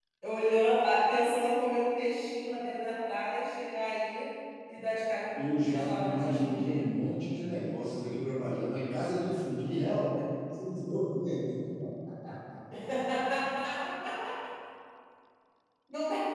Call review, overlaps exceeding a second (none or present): present